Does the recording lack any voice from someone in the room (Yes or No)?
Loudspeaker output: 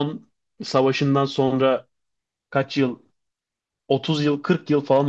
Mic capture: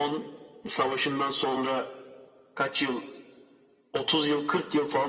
Yes